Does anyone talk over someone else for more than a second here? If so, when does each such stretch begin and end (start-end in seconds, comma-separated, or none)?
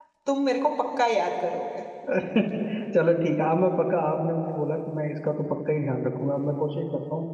none